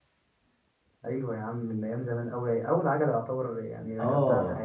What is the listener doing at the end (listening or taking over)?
taking over